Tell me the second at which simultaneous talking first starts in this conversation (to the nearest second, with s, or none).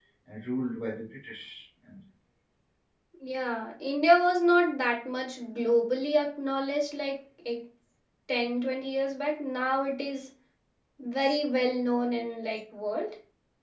none